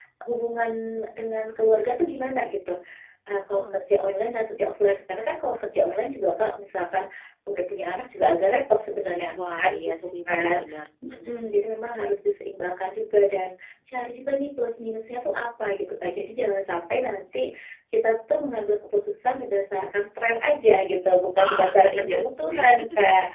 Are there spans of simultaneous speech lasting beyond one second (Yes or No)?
Yes